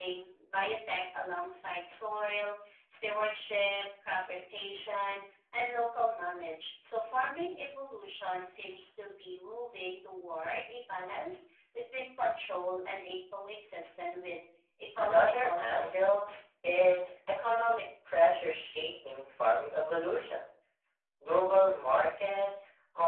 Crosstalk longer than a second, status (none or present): present